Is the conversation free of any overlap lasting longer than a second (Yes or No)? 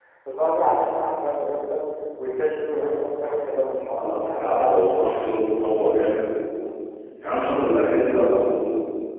No